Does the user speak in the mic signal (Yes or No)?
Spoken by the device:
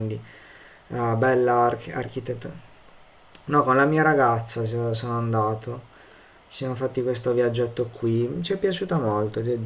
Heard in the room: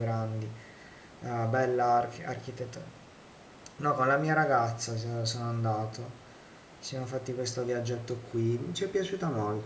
No